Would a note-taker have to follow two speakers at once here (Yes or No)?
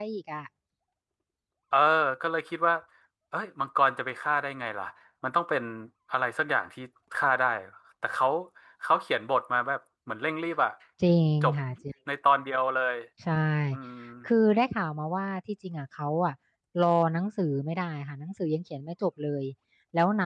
No